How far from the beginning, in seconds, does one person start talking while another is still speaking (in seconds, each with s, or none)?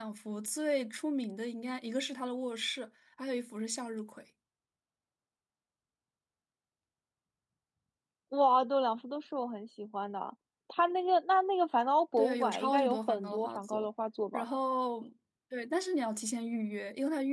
12.2 s